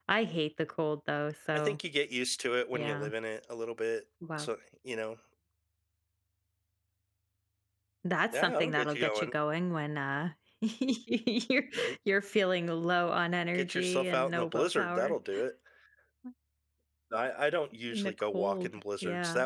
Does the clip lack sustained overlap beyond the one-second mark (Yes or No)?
No